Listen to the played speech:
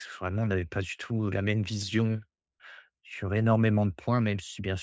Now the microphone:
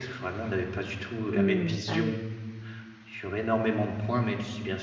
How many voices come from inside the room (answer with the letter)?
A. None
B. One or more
B